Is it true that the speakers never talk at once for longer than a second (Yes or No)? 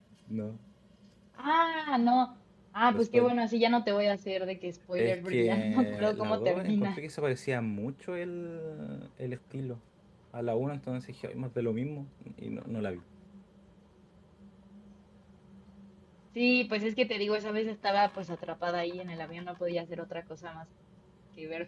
No